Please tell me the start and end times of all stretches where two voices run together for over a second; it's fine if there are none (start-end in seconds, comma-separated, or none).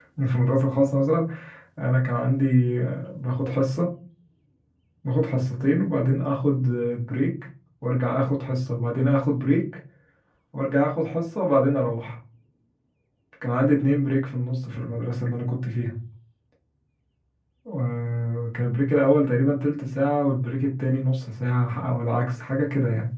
none